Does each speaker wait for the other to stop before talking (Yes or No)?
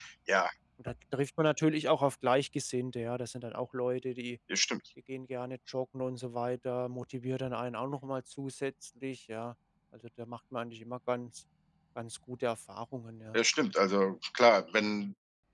Yes